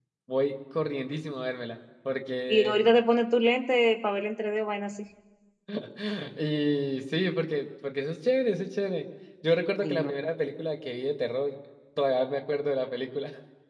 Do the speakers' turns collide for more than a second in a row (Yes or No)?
No